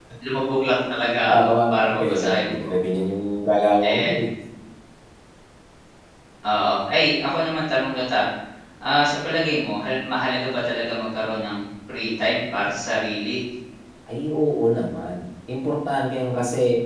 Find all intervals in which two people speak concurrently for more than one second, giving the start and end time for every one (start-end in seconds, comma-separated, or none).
1.3-2.7